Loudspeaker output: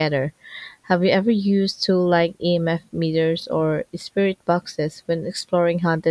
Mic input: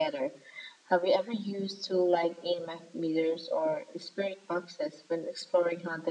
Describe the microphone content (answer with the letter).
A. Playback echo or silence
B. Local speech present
A